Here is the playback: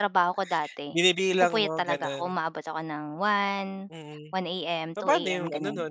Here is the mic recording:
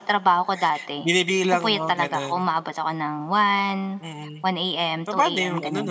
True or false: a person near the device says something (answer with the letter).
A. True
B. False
B